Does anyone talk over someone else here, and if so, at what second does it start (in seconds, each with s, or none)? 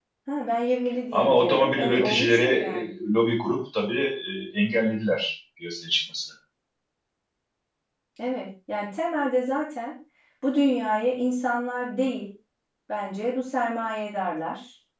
1.1 s